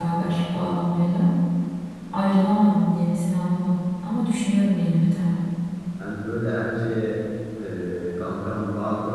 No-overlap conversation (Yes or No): Yes